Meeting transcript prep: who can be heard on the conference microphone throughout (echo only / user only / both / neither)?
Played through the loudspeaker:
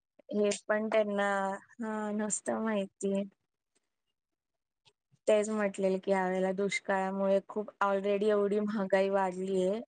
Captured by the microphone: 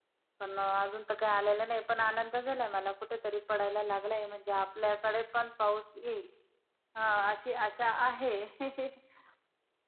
user only